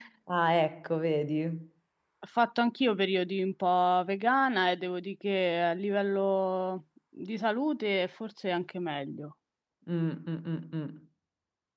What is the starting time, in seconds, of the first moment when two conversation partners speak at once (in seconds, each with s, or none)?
none